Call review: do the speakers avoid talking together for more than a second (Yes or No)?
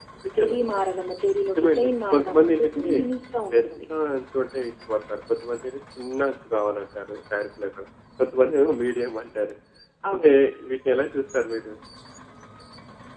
No